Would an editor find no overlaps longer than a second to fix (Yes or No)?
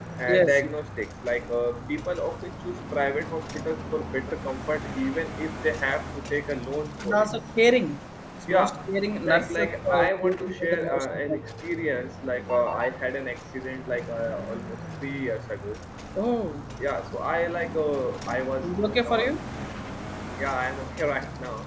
No